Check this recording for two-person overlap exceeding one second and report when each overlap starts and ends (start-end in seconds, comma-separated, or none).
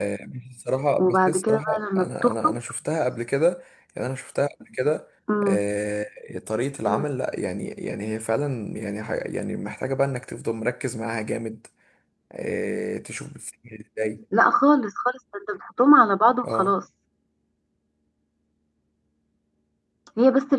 1.0-2.5